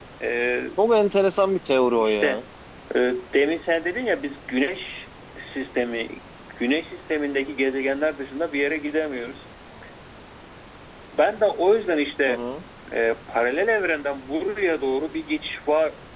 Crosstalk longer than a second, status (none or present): none